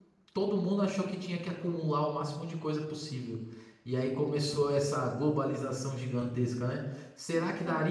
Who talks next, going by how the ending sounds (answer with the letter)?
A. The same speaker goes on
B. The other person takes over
A